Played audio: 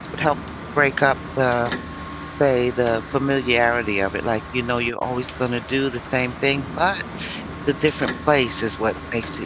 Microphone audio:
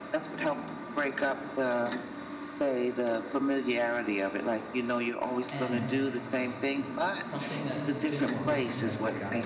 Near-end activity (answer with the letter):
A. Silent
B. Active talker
B